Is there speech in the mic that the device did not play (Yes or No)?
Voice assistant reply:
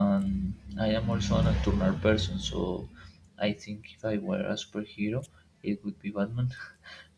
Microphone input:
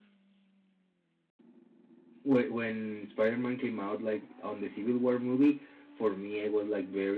Yes